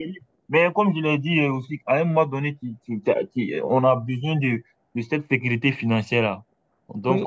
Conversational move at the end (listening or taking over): taking over